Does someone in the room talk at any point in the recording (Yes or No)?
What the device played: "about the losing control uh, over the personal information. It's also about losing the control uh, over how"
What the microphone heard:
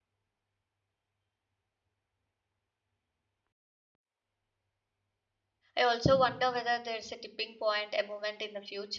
Yes